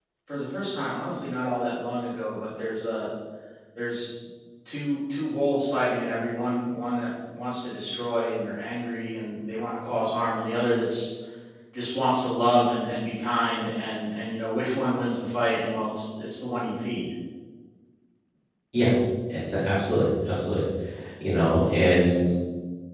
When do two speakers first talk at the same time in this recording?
none

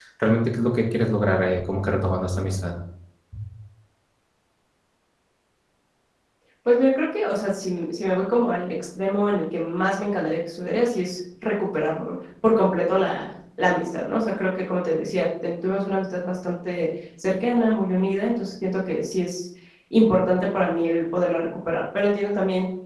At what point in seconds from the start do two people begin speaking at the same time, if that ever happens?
none

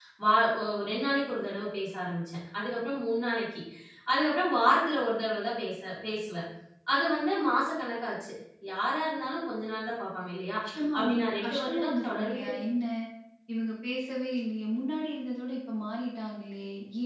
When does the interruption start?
11 s

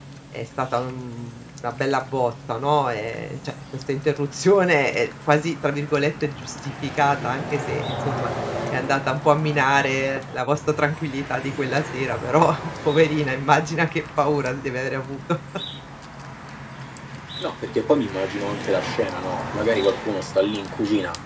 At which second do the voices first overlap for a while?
none

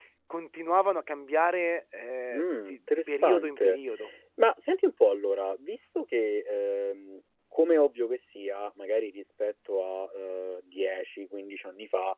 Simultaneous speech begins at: 2 s

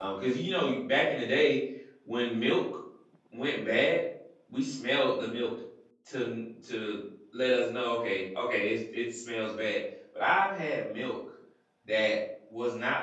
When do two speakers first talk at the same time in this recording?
none

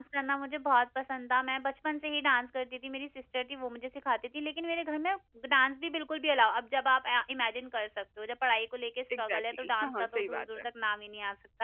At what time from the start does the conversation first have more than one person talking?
9 s

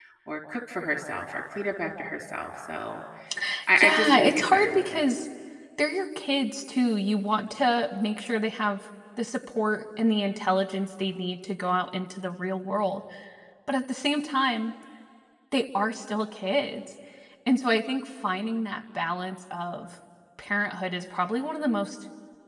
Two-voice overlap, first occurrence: 4 s

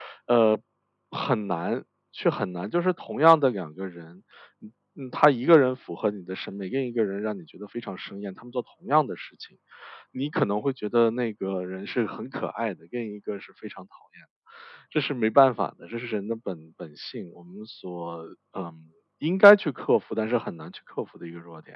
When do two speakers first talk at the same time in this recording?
none

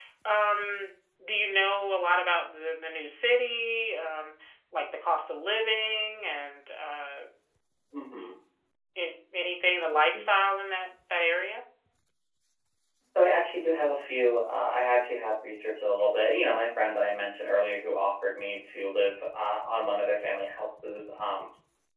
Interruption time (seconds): none

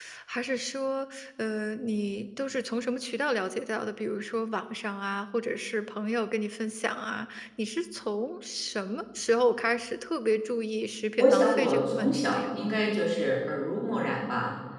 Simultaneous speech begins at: 11 s

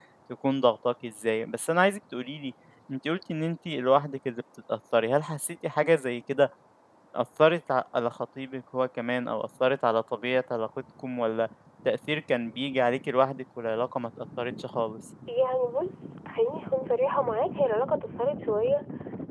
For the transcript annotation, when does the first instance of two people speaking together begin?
none

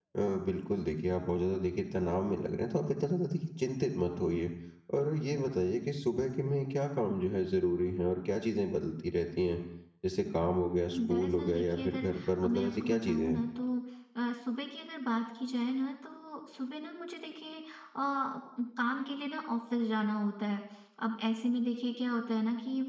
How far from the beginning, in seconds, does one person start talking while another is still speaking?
11 s

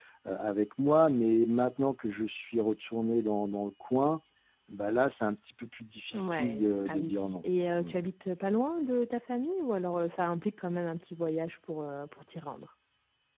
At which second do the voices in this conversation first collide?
6 s

